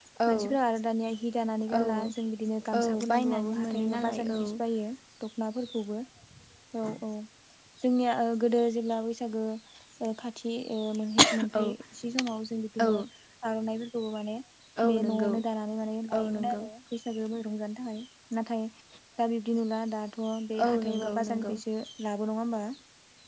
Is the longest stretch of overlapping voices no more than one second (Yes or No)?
No